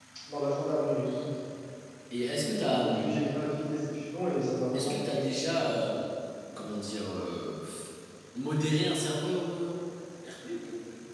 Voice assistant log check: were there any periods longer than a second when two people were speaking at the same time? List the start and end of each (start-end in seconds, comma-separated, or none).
none